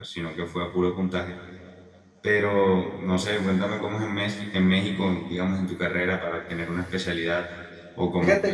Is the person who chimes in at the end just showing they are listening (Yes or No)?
No